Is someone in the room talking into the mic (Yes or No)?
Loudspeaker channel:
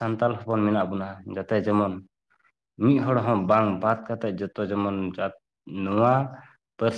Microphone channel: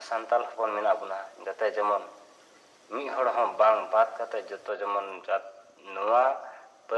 No